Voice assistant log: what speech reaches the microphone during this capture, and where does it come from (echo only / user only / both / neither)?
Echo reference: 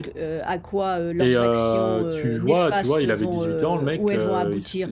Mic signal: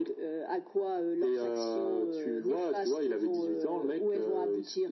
echo only